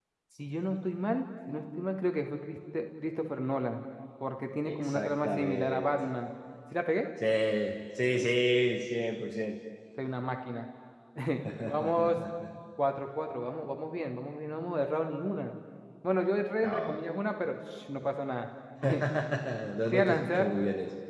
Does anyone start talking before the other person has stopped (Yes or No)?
Yes